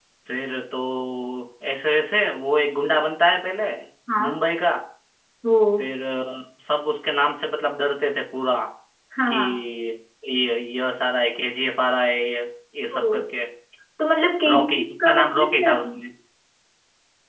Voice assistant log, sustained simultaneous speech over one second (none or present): present